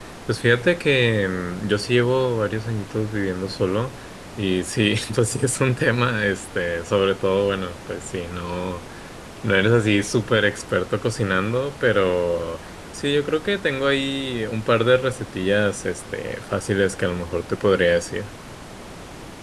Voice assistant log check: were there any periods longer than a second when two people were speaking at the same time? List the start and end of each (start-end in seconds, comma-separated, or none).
none